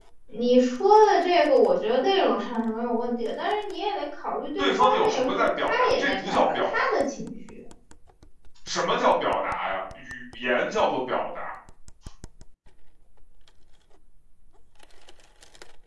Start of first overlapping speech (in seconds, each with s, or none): 4.6 s